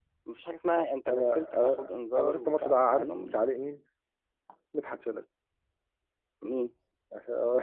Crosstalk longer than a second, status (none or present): present